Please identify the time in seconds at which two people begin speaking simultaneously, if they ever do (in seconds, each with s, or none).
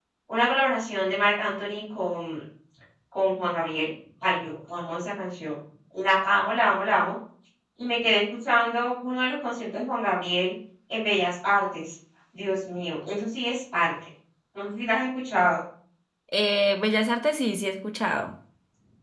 none